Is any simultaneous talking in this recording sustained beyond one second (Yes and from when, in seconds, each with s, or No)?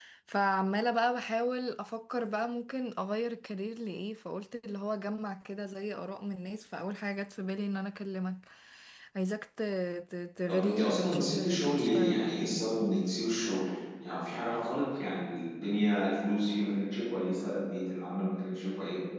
Yes, from 10.5 s